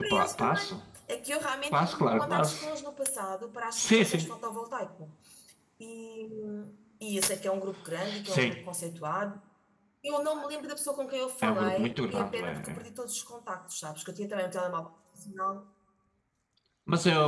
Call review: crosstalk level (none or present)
present